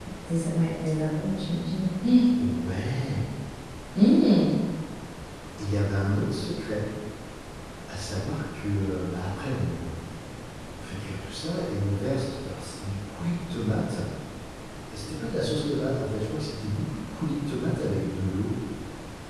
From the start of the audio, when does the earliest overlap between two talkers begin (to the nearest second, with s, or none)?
none